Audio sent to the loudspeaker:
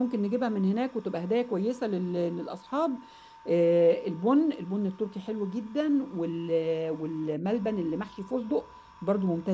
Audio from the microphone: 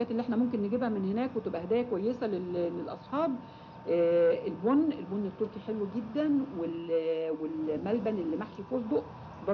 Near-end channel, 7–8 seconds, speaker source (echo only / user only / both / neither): echo only